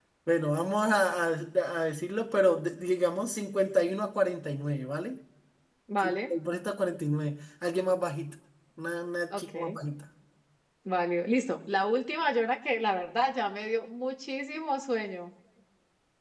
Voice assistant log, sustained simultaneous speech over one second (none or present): none